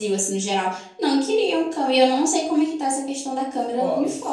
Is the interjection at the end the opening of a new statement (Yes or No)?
Yes